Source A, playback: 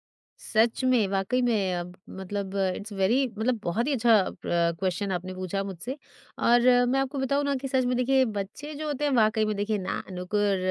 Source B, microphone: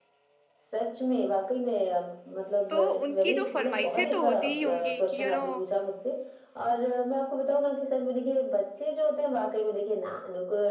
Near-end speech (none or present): present